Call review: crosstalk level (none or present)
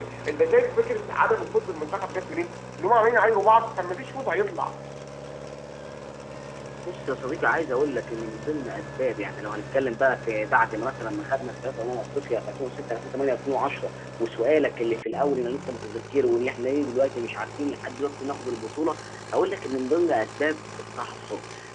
none